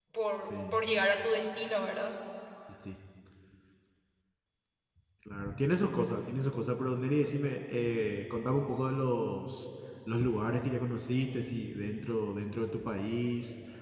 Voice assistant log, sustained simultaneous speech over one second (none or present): none